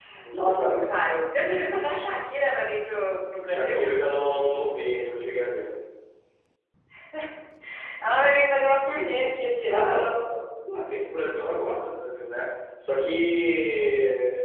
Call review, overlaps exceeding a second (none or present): none